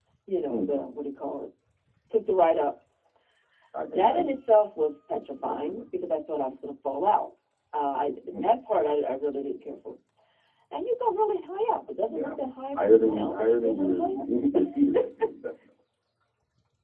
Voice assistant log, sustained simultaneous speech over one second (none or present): present